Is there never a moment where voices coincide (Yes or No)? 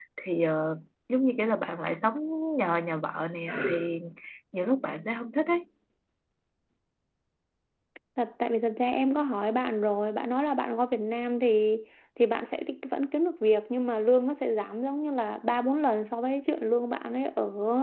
Yes